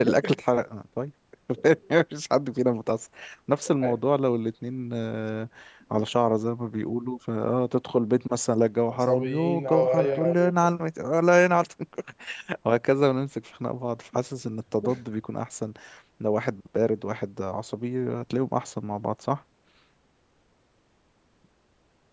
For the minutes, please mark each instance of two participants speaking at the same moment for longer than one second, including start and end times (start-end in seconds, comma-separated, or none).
8.9-10.5